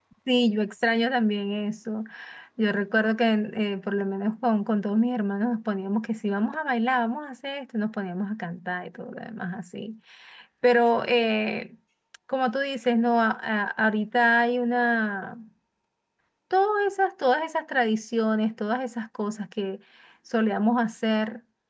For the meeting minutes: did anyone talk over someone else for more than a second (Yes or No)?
No